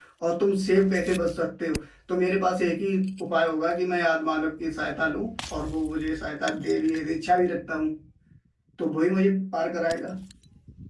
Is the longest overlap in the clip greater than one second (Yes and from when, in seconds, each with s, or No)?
No